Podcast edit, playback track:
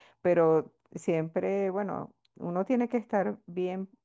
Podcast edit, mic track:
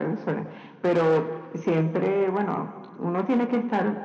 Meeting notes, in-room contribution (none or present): none